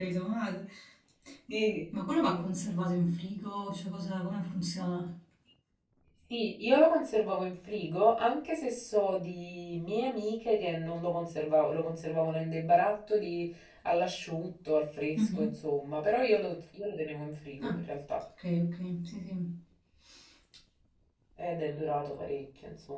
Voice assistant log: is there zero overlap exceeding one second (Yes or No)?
Yes